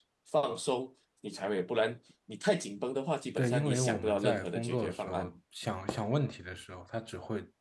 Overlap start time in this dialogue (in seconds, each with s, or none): 3.3 s